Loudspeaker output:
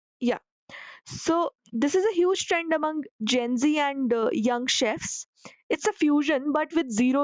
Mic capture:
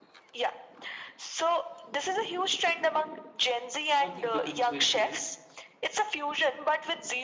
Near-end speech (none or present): present